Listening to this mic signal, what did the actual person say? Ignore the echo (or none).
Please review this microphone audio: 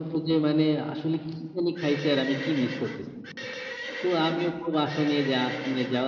none